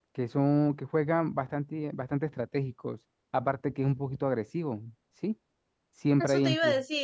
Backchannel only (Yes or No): No